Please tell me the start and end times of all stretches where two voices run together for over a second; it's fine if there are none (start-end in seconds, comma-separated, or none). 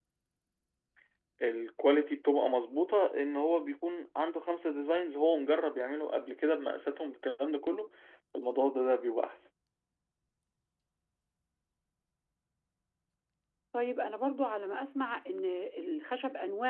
none